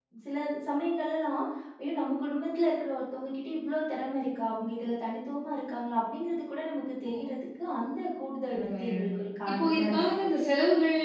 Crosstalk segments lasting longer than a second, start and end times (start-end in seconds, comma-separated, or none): 8.5-10.3